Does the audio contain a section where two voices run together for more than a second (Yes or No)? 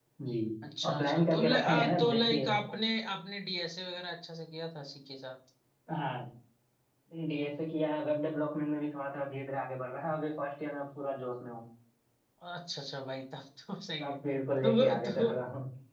Yes